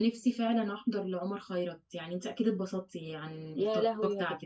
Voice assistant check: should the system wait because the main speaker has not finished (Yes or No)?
No